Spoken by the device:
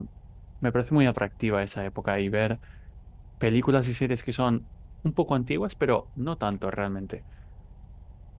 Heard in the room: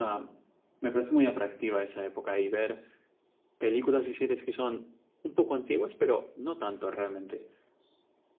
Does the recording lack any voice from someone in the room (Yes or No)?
Yes